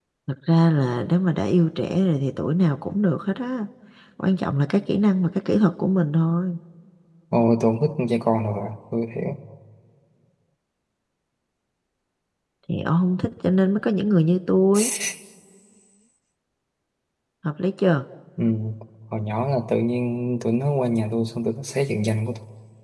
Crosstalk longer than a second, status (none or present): none